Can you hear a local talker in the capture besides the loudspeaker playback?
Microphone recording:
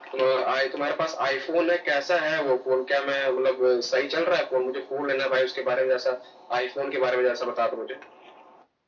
No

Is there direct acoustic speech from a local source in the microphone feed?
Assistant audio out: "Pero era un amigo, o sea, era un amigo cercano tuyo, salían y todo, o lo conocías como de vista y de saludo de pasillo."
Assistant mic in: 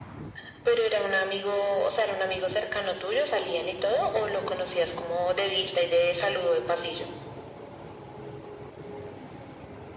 No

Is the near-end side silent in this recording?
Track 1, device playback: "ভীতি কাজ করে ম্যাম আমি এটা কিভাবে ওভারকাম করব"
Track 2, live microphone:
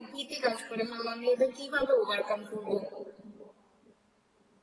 Yes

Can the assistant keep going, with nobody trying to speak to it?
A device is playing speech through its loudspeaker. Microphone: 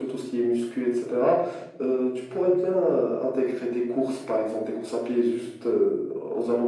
Yes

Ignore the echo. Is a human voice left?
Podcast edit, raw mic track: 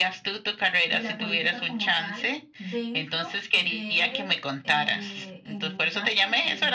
Yes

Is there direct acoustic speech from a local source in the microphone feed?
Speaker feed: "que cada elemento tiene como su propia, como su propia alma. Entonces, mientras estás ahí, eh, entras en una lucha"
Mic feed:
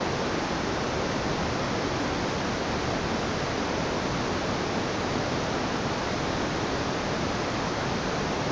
No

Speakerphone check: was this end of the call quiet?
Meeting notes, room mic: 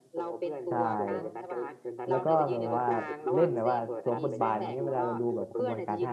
No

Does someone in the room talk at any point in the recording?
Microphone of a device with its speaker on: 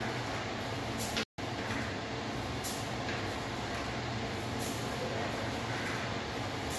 No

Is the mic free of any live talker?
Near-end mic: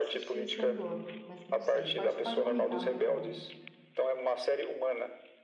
No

